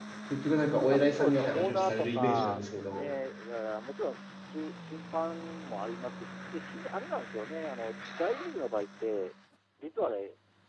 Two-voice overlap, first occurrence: 0.9 s

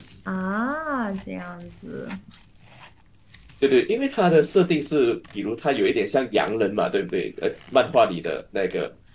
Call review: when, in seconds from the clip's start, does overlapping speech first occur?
none

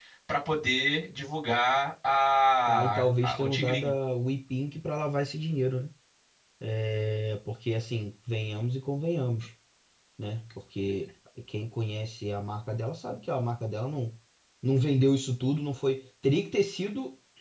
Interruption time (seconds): 2.7 s

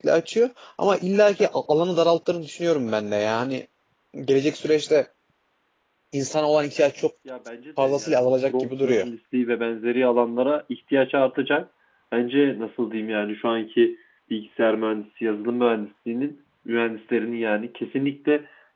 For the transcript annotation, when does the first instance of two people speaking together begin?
7.8 s

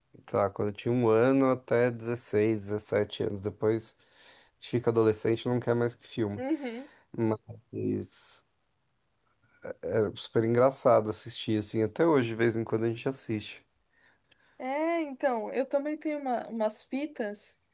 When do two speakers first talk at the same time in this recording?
none

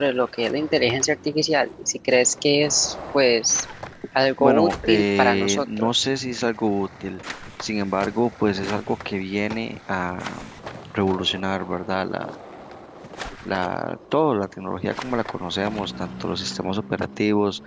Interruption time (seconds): 4.4 s

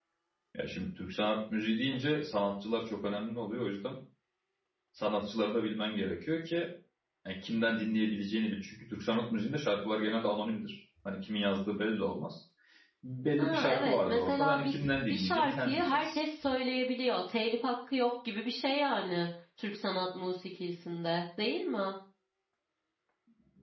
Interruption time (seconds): 13.4 s

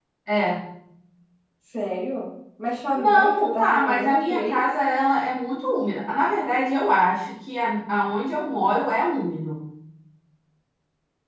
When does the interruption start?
3.0 s

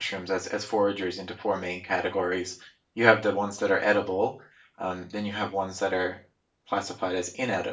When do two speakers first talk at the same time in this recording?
none

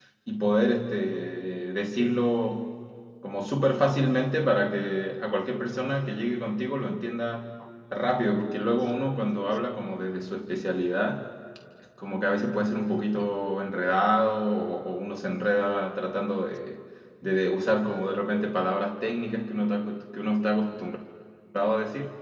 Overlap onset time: none

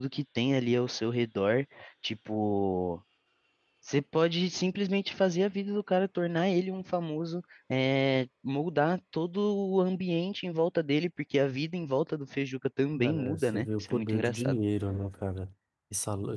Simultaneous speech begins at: 12.9 s

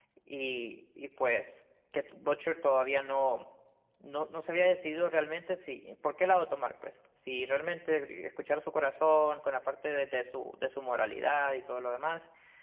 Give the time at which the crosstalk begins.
none

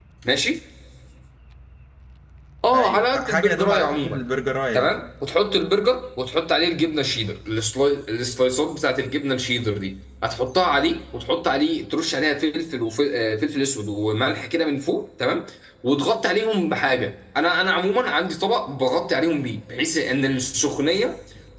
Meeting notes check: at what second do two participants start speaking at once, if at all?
2.7 s

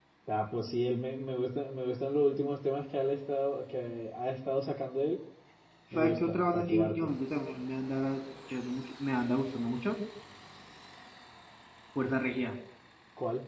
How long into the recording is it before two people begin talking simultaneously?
5.9 s

